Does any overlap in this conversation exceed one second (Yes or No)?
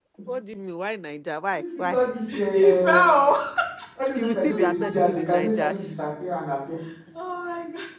Yes